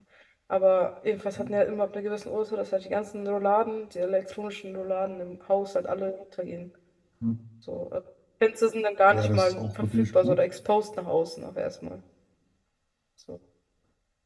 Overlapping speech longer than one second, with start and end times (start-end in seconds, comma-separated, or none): 9.1-10.3